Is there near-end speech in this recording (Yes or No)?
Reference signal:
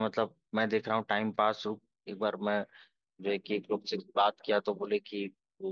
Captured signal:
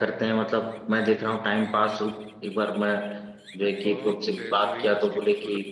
Yes